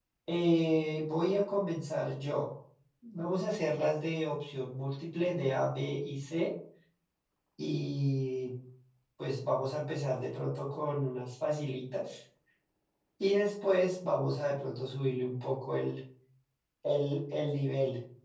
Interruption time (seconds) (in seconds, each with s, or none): none